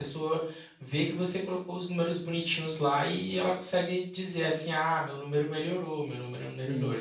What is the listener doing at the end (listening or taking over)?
taking over